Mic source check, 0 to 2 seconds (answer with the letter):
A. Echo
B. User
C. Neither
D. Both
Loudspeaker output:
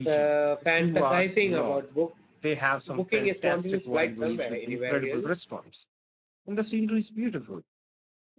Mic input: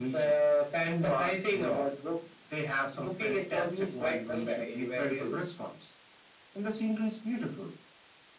A